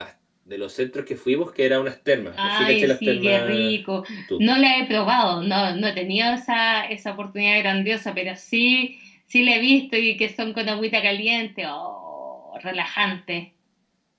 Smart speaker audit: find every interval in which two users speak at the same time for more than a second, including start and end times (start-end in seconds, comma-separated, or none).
2.3-3.8